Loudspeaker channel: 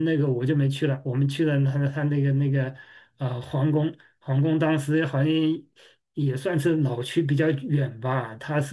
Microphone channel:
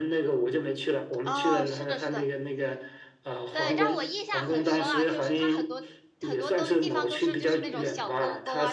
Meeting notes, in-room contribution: present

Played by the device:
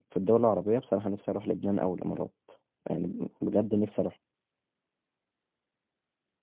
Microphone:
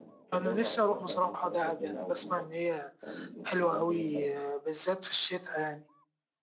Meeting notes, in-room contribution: present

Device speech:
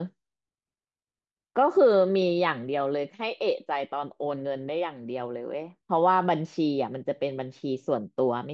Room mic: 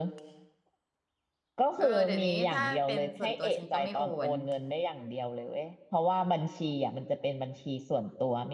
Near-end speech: present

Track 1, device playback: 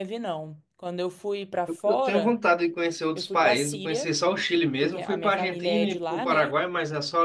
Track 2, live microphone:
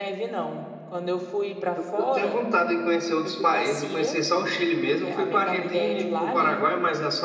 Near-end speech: none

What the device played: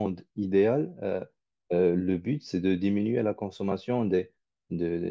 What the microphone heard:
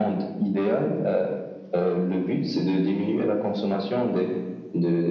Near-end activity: none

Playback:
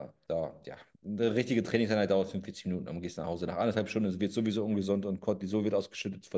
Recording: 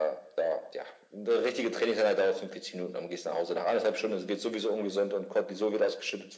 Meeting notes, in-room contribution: none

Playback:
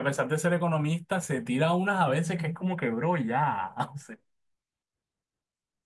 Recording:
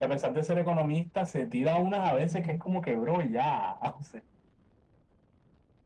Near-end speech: none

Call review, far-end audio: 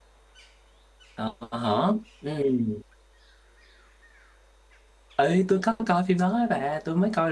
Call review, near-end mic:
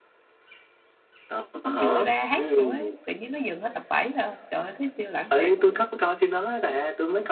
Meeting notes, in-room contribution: present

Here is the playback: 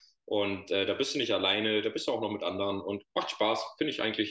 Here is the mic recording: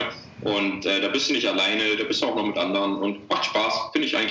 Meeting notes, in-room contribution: none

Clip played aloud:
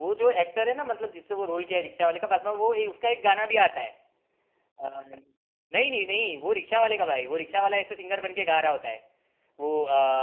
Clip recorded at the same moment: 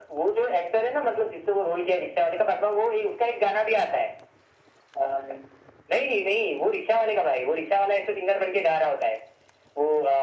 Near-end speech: none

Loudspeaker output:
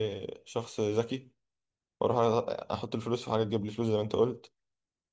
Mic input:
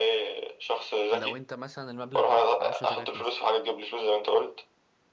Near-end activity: present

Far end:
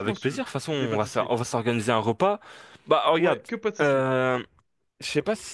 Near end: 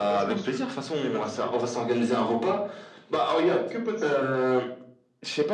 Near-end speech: none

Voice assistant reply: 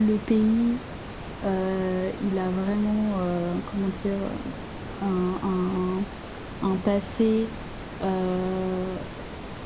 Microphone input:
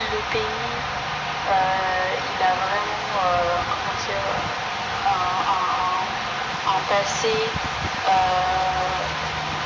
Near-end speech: none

